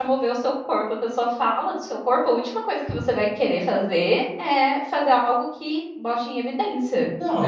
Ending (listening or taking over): taking over